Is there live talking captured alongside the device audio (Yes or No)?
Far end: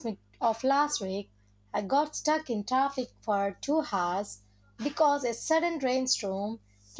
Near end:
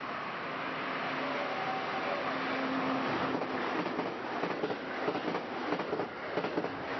No